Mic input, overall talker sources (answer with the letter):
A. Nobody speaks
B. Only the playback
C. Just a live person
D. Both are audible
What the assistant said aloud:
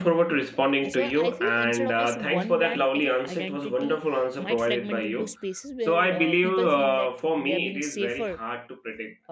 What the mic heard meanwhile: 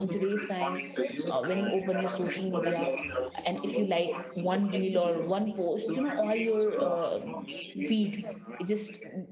D